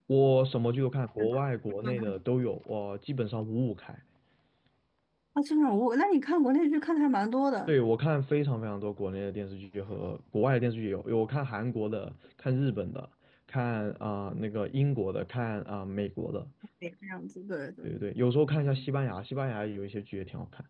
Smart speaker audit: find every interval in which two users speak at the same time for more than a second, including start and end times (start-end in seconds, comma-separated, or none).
none